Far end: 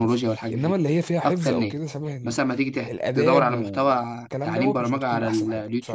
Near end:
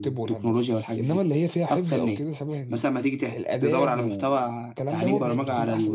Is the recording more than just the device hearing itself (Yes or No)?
Yes